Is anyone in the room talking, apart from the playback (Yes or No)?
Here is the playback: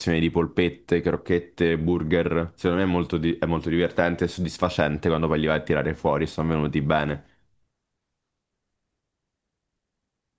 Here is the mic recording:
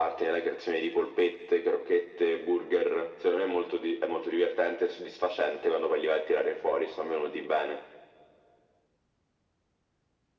No